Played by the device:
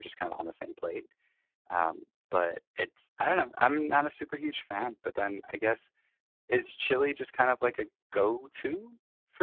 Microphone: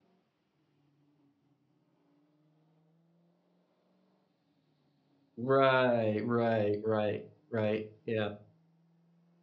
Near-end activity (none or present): present